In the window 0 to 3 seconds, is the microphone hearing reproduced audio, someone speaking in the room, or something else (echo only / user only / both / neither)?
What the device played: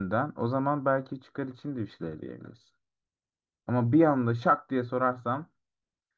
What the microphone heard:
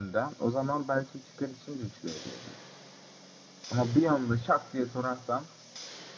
echo only